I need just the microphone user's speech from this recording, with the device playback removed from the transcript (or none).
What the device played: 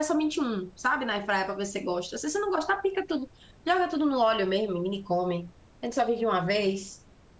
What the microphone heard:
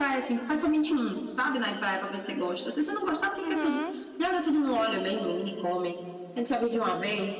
uhum,